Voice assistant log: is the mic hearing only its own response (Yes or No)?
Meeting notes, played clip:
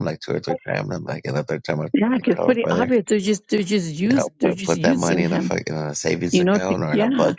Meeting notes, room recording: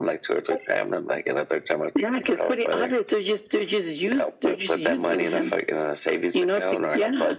Yes